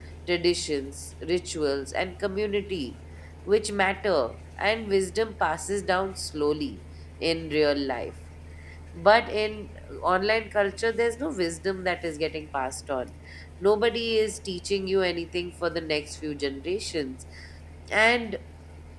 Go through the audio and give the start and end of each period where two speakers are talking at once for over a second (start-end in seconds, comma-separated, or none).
none